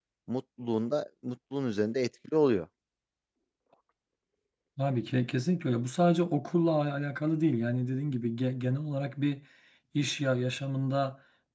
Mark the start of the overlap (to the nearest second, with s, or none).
none